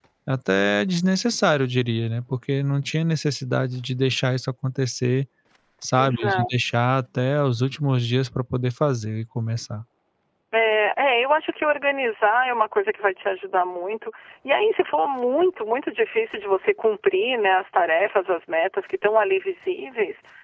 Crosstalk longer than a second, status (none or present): none